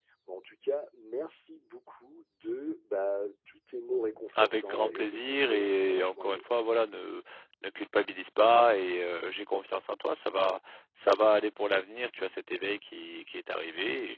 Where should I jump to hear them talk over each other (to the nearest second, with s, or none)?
4 s